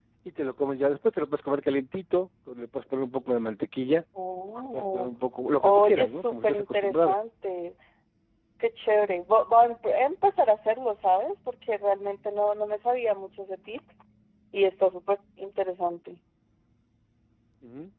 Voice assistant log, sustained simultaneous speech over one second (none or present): present